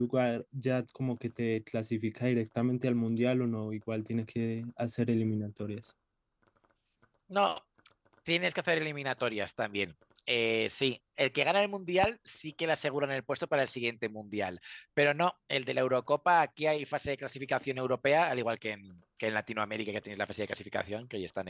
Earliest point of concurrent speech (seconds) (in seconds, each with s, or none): none